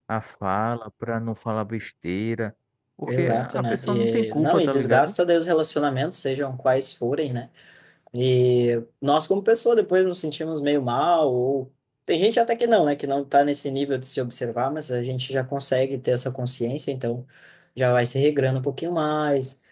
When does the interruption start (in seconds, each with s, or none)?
3.1 s